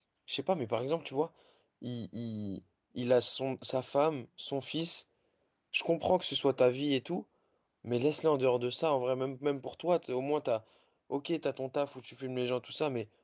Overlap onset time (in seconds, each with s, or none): none